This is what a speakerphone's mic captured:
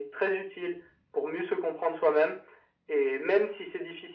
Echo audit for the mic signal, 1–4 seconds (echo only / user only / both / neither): echo only